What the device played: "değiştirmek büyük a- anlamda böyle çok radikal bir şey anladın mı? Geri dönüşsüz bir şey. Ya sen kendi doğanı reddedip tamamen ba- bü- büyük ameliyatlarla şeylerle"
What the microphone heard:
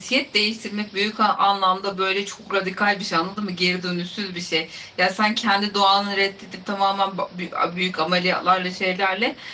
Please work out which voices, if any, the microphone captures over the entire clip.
echo only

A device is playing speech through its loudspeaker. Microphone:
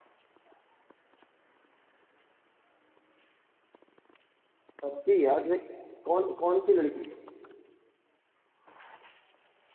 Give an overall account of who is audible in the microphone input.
user only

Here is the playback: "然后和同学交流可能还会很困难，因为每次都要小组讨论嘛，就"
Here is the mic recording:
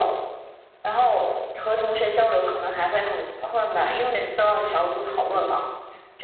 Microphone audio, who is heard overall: echo only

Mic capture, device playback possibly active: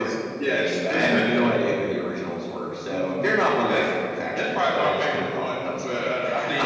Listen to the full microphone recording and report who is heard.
echo only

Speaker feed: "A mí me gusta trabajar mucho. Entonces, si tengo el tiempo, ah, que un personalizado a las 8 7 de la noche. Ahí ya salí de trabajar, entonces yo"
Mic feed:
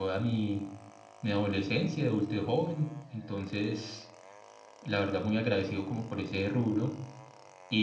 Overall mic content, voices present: user only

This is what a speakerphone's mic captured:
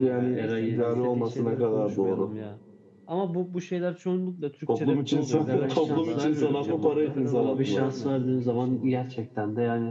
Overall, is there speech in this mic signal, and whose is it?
both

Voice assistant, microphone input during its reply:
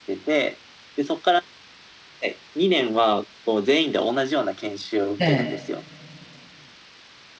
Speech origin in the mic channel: both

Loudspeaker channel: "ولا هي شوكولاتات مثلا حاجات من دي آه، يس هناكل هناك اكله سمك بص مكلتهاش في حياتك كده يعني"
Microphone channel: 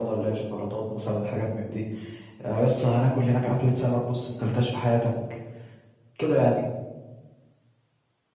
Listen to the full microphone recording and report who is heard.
echo only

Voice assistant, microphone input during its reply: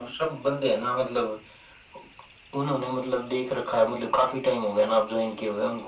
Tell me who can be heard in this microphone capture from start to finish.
echo only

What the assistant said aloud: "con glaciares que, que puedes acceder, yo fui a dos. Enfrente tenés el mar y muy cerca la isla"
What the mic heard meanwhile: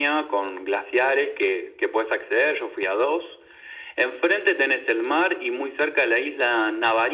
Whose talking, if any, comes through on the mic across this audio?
echo only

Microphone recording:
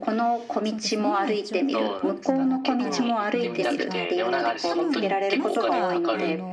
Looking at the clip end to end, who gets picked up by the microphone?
both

